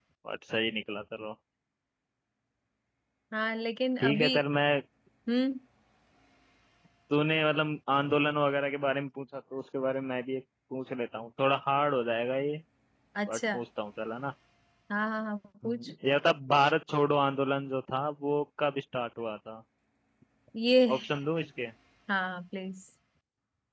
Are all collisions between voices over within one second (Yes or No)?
Yes